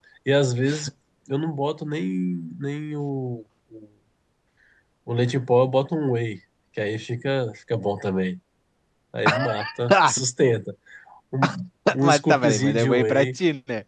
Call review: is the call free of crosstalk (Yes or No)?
No